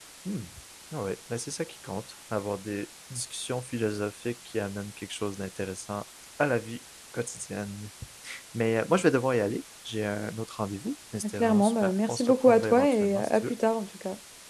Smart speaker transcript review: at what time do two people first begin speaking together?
11.2 s

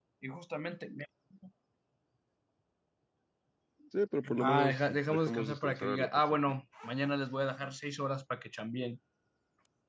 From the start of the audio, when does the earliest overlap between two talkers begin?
4.4 s

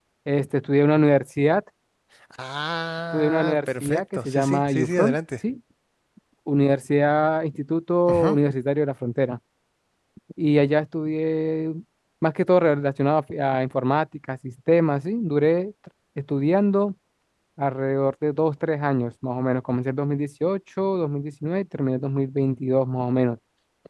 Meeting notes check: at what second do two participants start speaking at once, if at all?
3.1 s

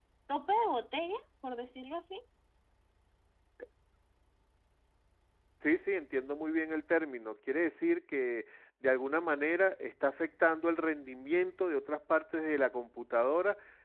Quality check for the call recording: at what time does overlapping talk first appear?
none

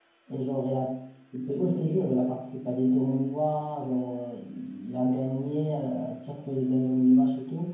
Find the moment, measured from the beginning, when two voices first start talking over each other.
none

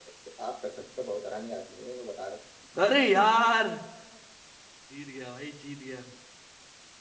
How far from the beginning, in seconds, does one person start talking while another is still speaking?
none

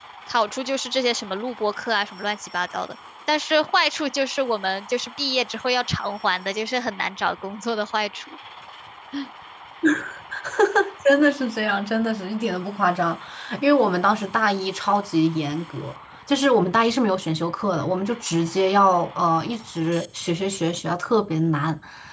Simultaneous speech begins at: none

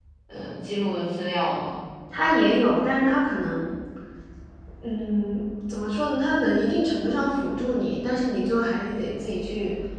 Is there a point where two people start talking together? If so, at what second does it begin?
none

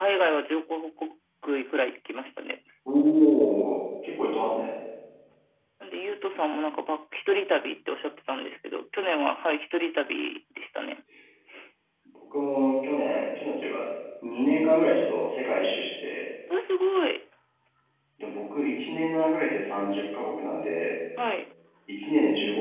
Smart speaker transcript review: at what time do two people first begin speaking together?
none

